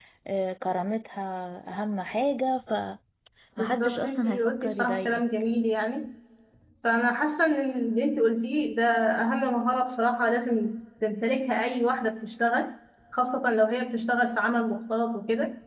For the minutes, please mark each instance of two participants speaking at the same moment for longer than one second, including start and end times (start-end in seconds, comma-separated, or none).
3.6-5.2